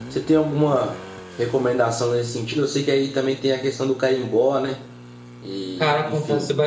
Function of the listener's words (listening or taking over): taking over